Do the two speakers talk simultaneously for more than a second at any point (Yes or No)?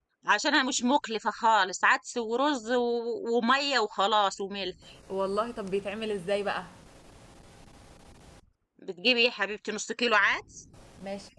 No